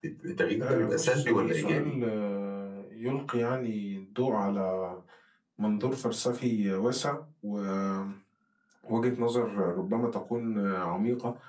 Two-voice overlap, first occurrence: 0.6 s

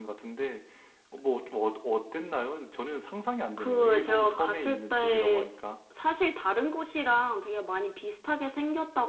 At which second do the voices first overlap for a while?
3.6 s

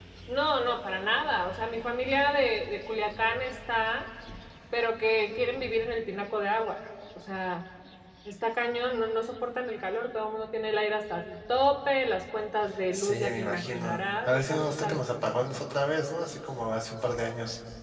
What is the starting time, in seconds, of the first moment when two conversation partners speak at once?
12.9 s

